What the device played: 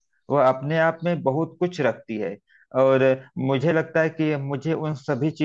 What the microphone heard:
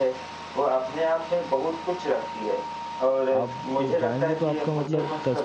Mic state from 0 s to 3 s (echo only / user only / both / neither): echo only